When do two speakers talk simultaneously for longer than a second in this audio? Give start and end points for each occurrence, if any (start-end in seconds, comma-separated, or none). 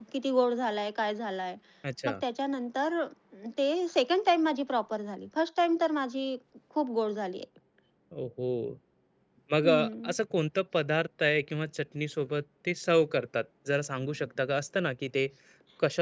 none